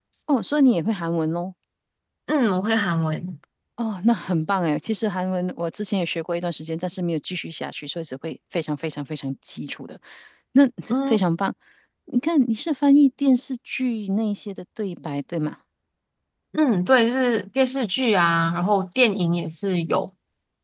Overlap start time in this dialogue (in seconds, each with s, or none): none